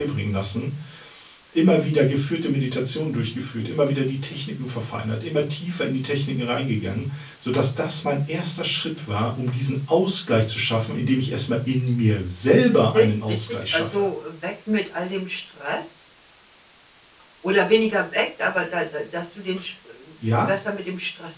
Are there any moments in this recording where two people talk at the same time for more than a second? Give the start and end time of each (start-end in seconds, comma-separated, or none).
12.7-14.0